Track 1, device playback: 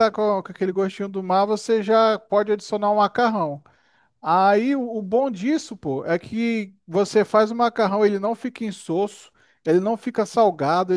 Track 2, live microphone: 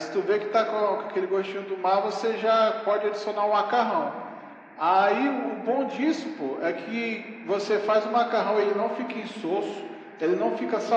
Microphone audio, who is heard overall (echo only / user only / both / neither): echo only